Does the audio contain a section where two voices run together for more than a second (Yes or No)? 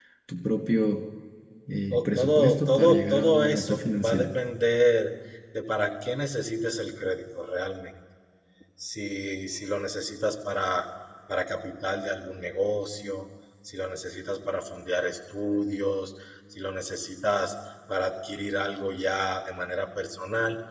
Yes